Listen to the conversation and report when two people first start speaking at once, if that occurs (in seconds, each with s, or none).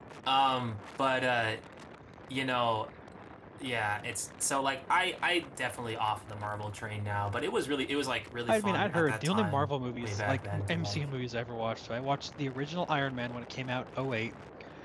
8.5 s